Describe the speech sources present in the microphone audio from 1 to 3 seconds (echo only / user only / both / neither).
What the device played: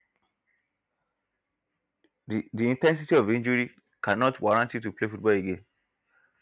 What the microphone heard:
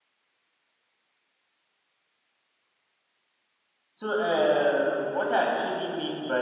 neither